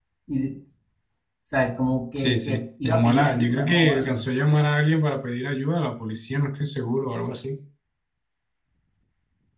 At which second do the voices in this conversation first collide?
2.2 s

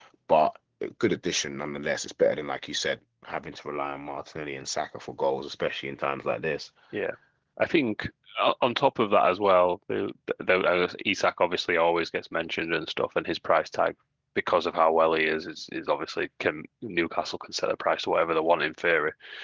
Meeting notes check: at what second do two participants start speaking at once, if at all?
none

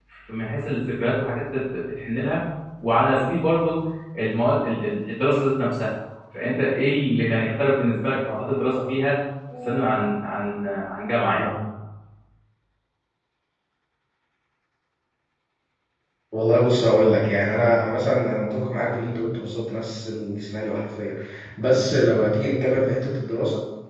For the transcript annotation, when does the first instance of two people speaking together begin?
none

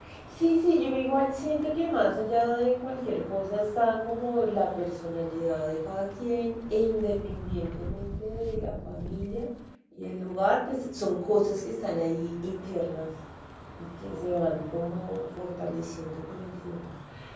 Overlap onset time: none

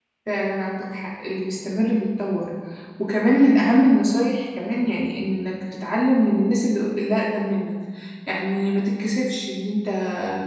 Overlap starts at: none

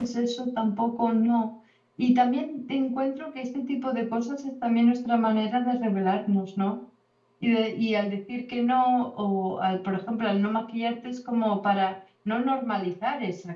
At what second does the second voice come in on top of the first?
none

